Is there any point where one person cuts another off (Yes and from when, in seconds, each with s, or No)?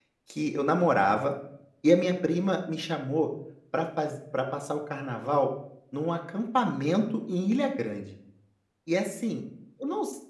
No